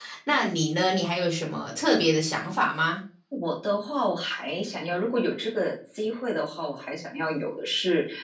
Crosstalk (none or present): none